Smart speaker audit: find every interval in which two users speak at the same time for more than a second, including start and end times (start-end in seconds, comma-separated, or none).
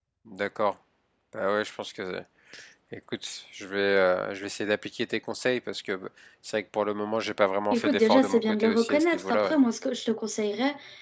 7.7-9.6